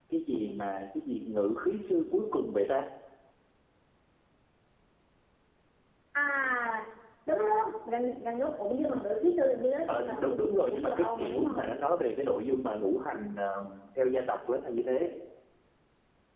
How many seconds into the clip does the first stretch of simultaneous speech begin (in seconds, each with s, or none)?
9.9 s